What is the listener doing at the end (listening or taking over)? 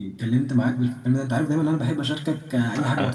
taking over